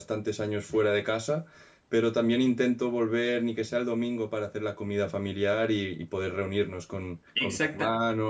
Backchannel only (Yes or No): Yes